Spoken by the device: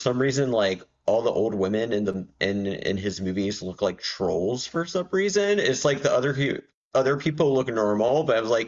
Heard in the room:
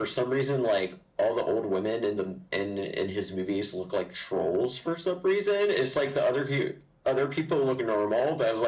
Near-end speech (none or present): none